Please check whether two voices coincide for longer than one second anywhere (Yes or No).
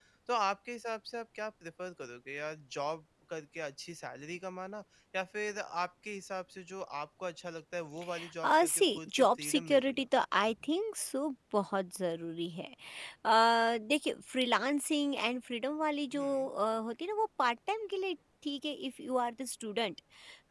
Yes